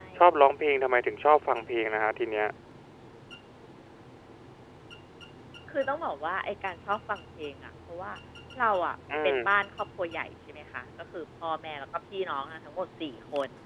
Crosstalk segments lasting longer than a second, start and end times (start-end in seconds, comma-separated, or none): none